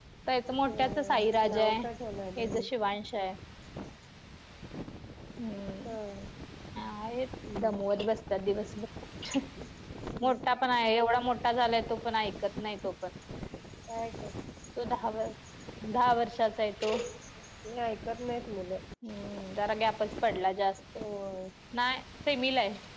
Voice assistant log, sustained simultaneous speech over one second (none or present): none